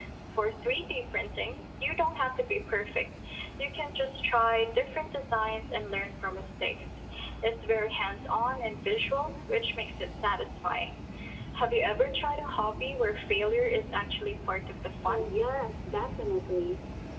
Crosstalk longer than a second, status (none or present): none